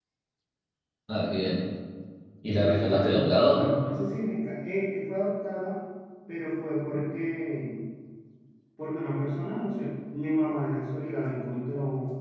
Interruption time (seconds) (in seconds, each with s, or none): 2.4 s